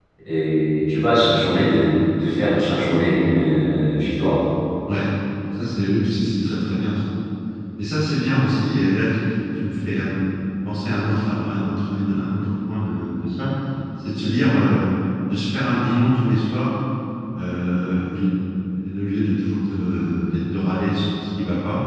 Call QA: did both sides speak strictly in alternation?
Yes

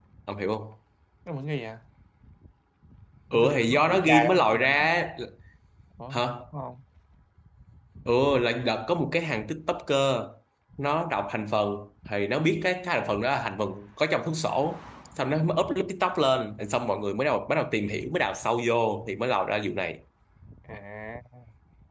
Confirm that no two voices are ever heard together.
No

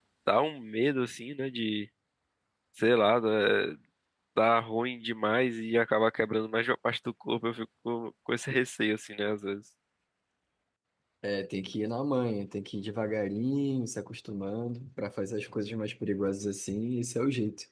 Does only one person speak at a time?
Yes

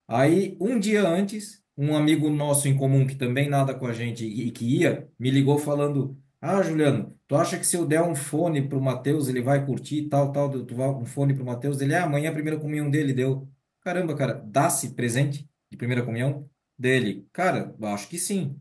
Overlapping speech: No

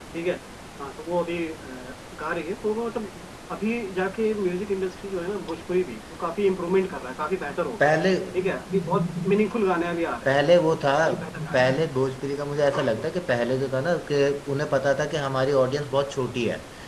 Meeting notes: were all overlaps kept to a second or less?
Yes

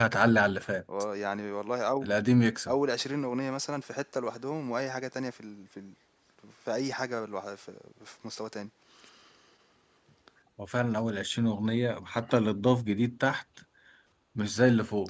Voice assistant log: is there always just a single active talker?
Yes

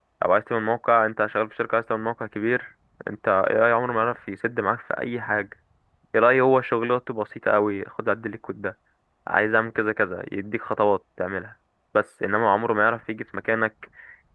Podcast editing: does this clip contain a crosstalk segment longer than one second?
No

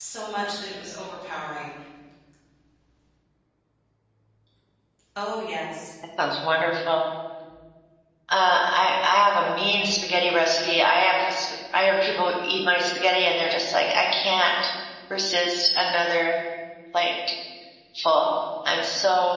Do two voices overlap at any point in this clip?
No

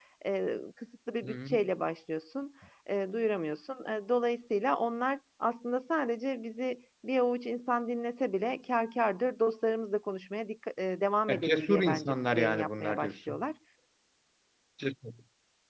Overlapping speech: Yes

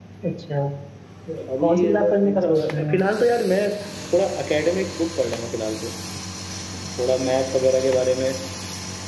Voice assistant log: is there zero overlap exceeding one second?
No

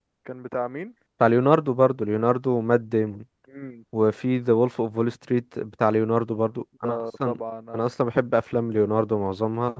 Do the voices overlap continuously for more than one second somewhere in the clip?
No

